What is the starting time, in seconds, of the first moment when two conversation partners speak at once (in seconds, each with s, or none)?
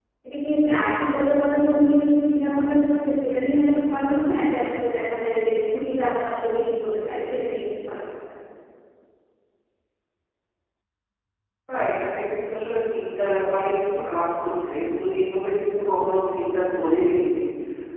none